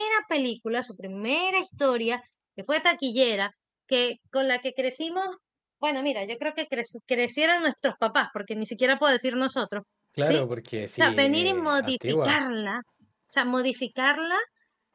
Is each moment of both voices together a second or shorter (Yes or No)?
No